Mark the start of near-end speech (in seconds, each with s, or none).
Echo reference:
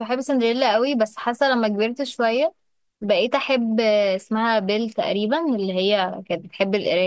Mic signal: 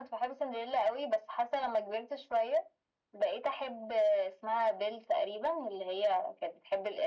none